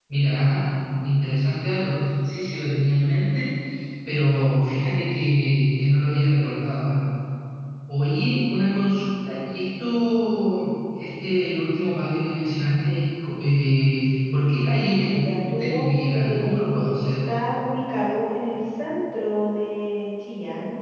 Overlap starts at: 15 s

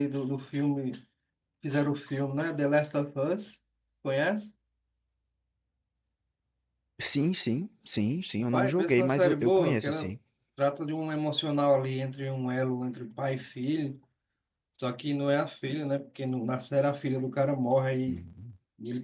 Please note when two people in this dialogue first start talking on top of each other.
8 s

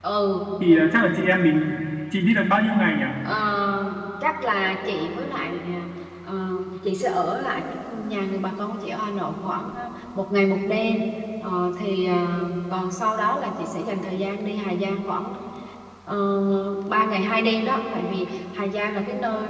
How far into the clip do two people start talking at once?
none

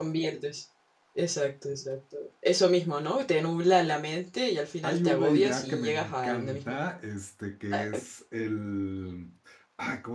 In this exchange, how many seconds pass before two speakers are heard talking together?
5 s

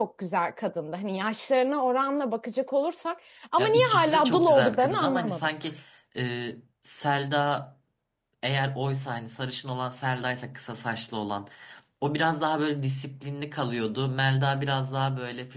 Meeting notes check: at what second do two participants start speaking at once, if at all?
4 s

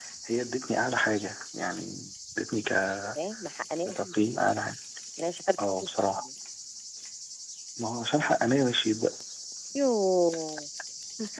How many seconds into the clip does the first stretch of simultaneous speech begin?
none

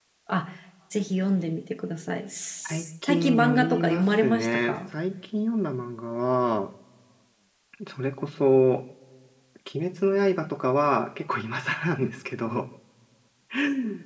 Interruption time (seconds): 3 s

